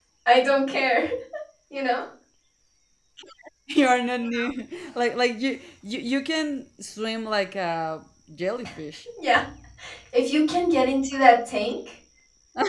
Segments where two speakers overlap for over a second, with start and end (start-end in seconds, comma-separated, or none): none